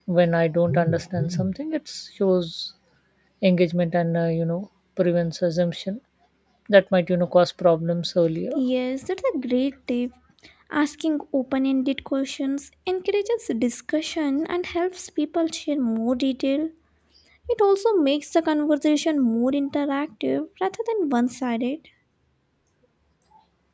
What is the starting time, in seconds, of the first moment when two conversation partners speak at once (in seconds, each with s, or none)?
none